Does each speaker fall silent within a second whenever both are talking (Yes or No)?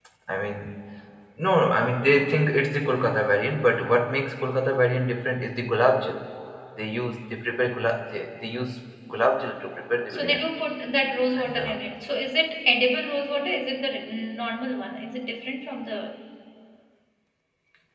Yes